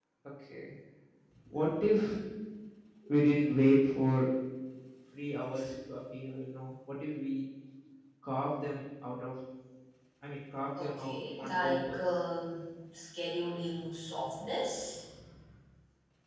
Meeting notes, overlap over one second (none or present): present